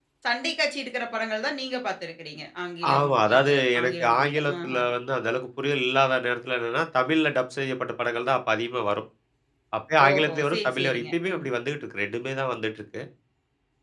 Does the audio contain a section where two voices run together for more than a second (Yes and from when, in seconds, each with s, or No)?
Yes, from 2.9 s